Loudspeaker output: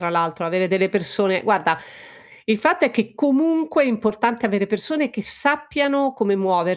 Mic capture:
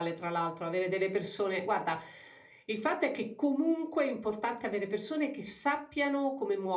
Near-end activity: none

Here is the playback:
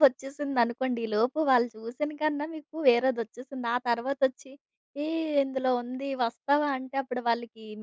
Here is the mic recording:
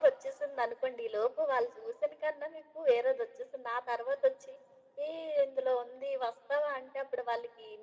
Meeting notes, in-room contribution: none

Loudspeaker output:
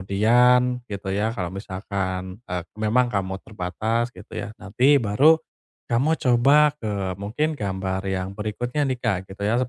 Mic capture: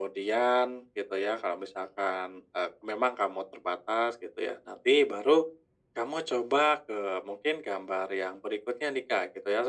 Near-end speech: none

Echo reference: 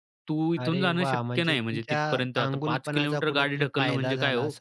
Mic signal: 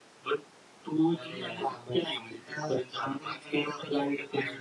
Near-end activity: present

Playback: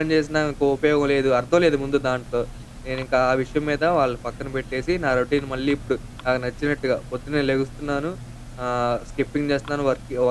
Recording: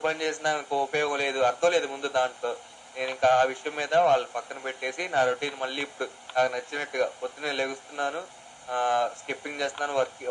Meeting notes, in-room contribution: none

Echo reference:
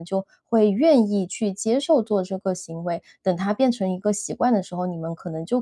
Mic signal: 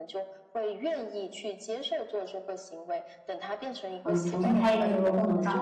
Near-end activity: present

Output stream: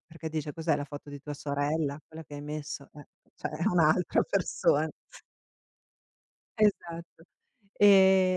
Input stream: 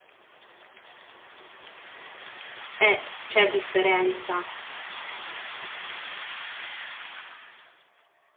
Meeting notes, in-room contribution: present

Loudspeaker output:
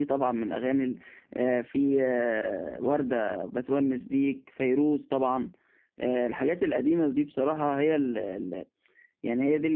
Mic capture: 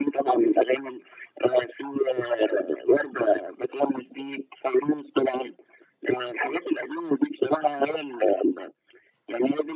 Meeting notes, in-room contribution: none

